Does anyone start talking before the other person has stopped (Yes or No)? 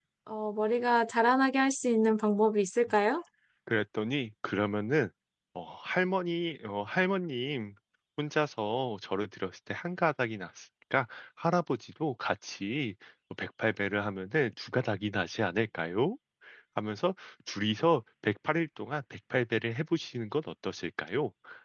No